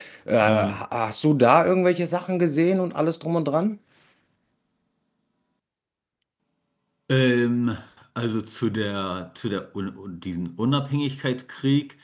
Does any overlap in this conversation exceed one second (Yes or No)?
No